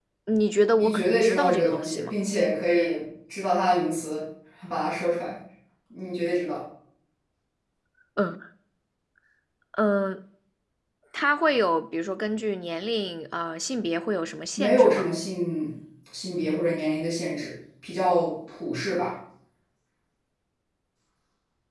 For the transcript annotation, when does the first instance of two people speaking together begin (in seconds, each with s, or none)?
0.8 s